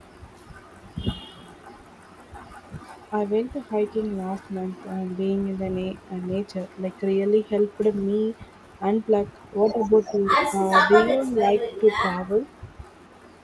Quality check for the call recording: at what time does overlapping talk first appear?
10.3 s

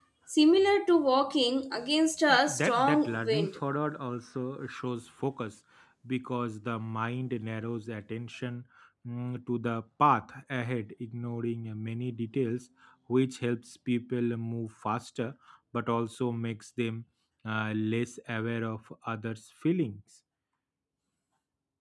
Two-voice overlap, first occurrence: 2.3 s

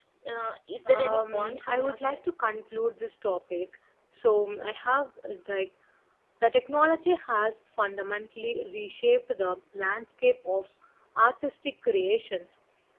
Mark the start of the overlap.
0.8 s

